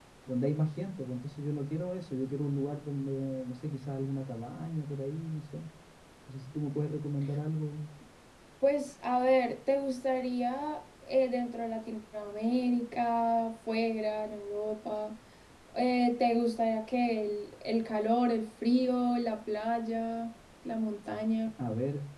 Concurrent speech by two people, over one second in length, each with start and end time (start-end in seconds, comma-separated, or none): none